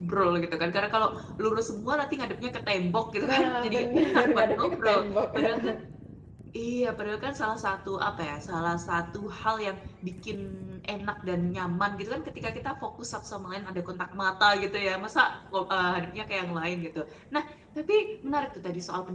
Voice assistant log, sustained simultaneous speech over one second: present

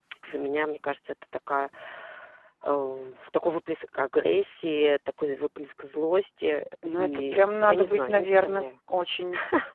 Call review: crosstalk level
present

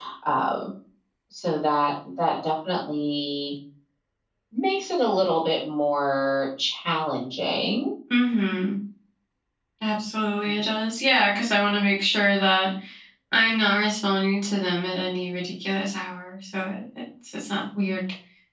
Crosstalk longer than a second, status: none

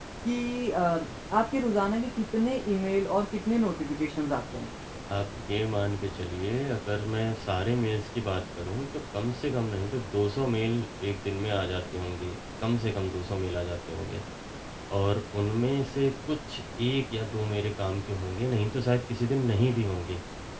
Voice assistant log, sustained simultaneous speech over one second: none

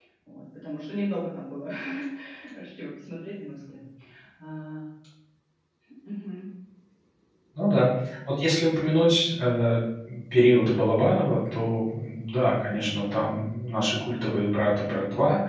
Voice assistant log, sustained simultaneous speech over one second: none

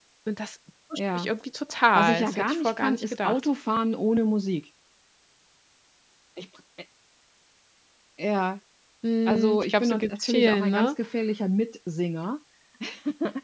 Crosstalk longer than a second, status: present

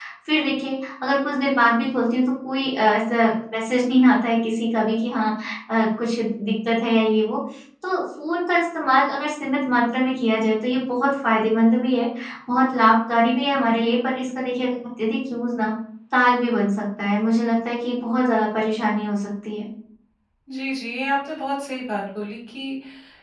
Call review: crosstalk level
none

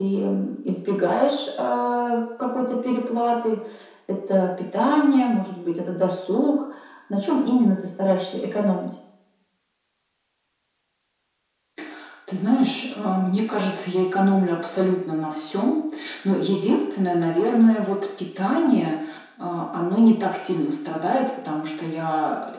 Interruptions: none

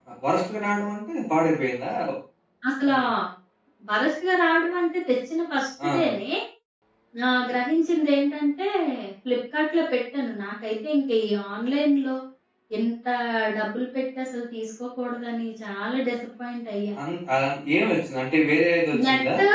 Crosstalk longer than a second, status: none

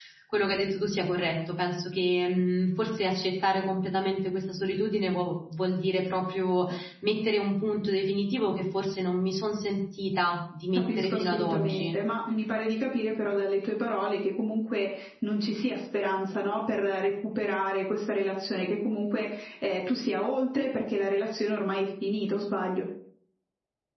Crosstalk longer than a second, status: present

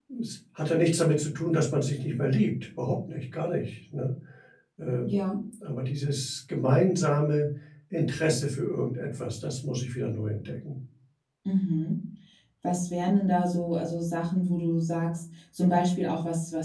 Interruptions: none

